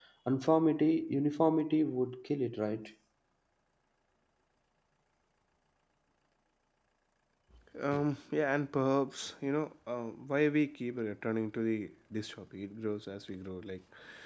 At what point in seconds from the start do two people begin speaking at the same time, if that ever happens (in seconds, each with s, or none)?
none